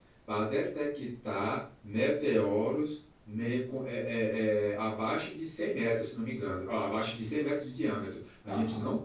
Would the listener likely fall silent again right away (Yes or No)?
Yes